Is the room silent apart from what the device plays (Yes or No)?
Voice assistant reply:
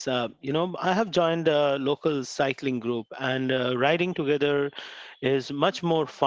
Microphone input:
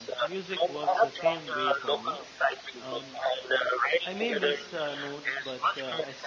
No